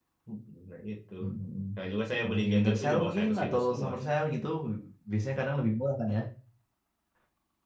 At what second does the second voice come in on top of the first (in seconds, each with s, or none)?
2.2 s